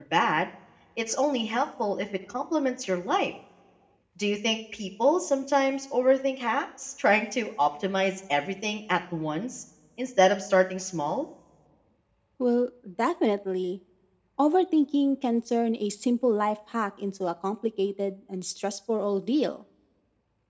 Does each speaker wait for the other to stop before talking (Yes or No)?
Yes